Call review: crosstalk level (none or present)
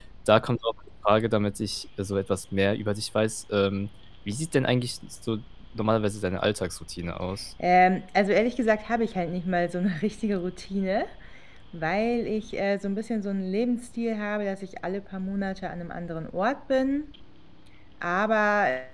none